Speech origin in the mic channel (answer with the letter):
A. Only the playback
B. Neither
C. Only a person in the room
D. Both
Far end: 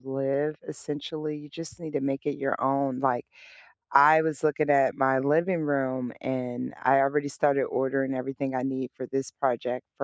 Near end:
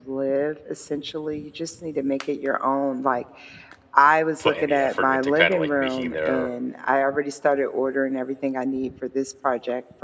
D